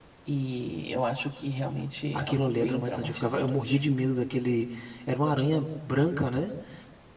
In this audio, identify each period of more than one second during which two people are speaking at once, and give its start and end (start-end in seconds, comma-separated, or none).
2.1-3.8